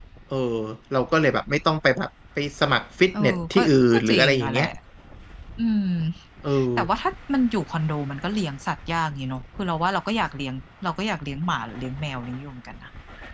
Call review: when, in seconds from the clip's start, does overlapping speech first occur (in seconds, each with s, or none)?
3.1 s